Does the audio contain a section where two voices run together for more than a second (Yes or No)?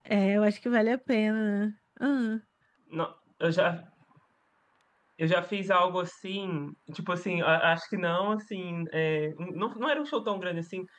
No